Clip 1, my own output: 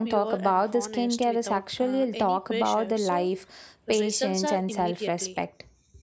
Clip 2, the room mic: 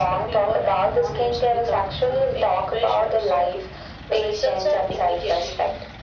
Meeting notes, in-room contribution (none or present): none